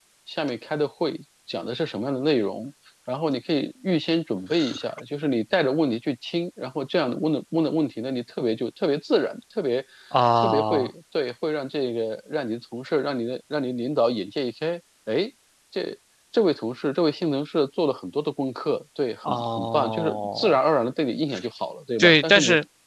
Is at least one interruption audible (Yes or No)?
Yes